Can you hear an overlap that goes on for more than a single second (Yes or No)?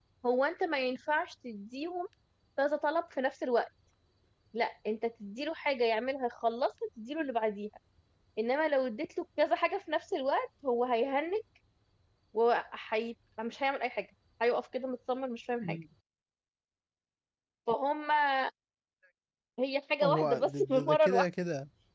Yes